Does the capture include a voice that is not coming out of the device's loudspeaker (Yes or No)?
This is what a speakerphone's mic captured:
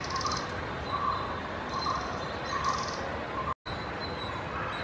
No